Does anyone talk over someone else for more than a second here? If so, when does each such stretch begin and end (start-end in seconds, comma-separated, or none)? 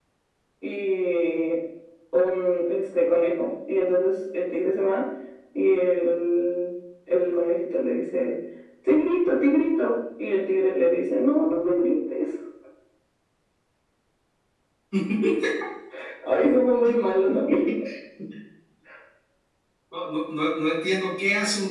none